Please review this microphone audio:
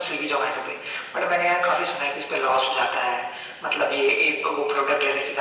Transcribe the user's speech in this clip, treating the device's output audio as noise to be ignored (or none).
none